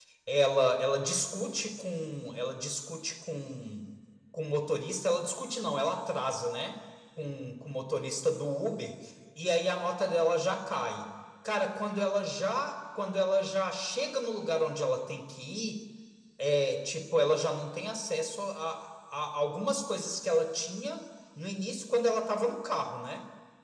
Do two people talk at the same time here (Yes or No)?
No